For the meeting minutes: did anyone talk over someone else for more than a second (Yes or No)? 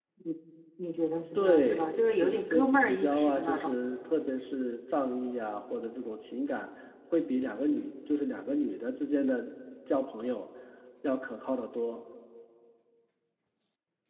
Yes